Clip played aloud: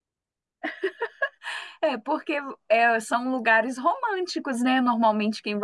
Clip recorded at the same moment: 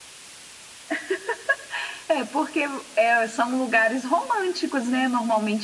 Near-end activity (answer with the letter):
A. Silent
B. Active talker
A